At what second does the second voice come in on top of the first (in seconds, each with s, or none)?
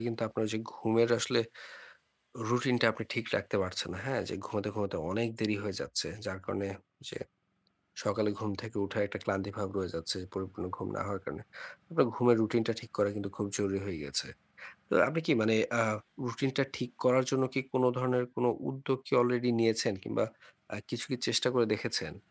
none